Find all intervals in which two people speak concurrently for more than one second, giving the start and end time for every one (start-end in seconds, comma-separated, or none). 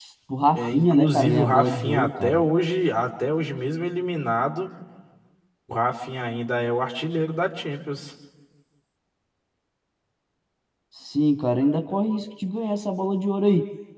0.6-2.4